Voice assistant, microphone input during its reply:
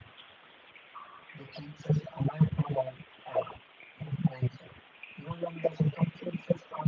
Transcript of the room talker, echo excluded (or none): none